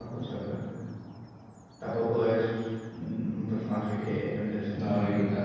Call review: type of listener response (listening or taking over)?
taking over